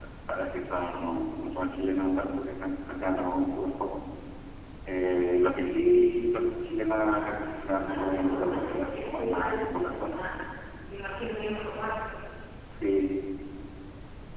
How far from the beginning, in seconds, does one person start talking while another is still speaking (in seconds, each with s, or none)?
7.1 s